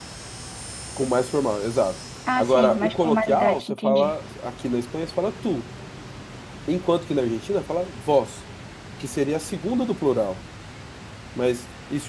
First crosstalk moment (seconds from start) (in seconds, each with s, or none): 2.3 s